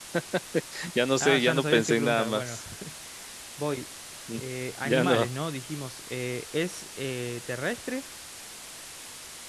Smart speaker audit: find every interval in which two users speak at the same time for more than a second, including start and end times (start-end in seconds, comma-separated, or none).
1.2-2.6